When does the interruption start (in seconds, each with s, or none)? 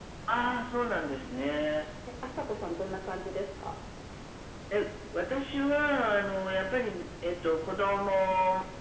none